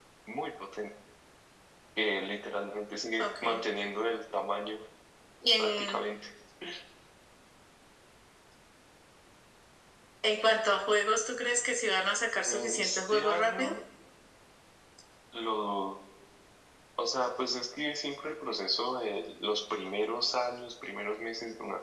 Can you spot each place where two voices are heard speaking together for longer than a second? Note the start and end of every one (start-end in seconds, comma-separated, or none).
12.4-13.8